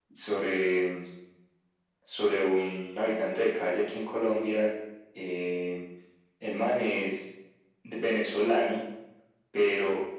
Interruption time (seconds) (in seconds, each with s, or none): none